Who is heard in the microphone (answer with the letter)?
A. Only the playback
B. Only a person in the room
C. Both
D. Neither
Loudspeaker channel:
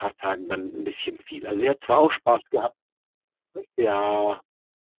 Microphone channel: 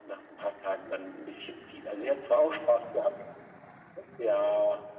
A